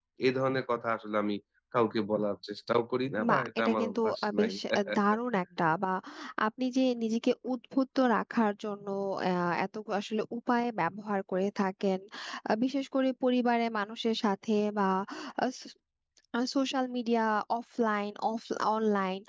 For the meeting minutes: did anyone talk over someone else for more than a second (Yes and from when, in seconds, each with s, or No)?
Yes, from 3.2 s